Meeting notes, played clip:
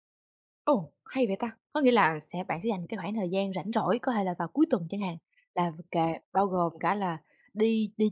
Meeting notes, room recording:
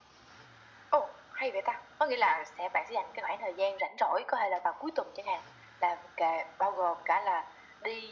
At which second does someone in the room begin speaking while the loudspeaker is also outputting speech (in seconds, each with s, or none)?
none